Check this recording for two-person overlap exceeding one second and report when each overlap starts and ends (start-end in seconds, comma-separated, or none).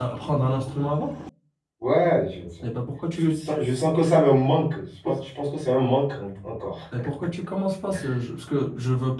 none